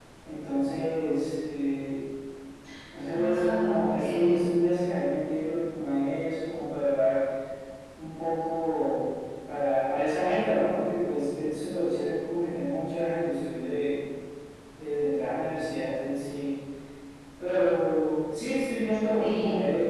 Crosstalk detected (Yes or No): Yes